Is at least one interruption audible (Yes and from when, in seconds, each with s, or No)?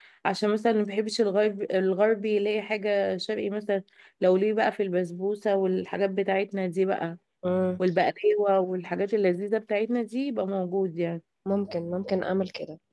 No